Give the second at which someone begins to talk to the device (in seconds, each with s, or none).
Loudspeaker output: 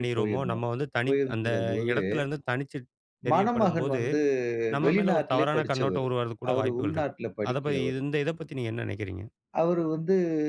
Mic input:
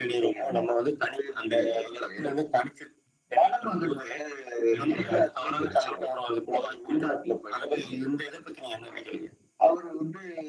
4.8 s